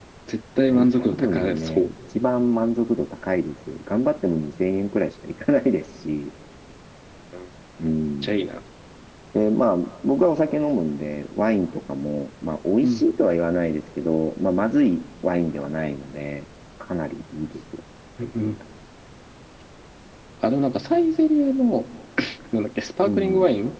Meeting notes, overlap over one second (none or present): present